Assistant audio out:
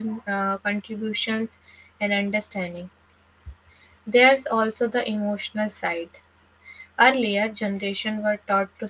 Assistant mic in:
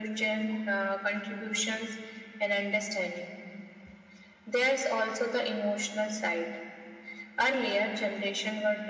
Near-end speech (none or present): none